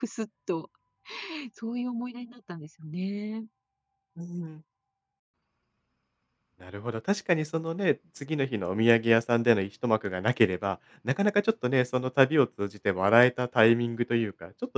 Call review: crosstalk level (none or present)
none